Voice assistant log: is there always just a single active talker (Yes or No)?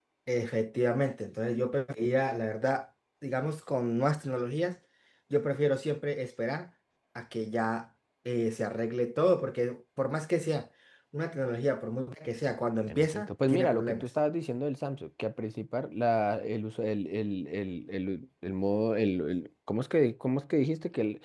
No